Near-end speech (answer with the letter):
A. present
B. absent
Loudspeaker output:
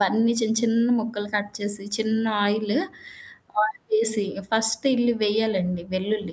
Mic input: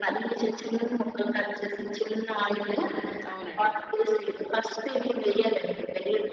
A